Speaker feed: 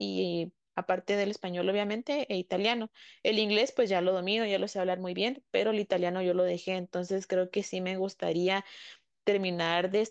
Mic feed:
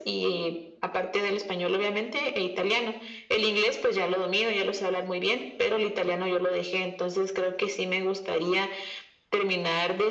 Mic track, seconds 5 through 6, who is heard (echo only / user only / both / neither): echo only